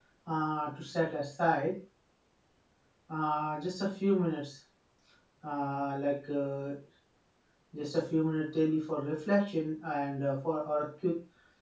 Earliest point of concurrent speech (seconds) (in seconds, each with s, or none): none